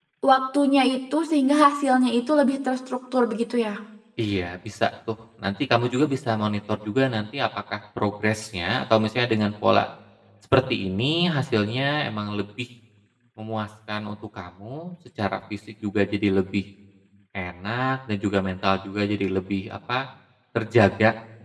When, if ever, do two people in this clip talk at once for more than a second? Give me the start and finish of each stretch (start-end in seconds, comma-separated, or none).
none